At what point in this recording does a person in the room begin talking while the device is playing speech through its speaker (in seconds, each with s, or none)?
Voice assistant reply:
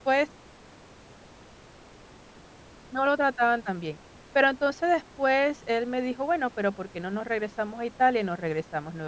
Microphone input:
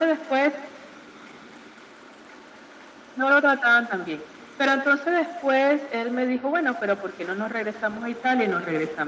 none